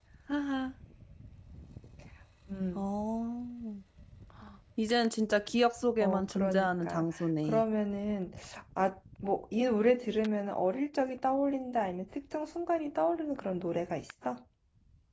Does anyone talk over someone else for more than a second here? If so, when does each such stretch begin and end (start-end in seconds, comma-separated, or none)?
6.0-7.6